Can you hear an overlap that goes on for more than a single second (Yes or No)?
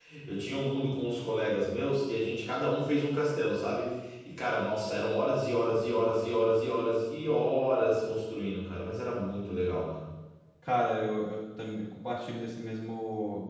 No